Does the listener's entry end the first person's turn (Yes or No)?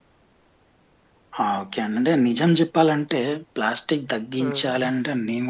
No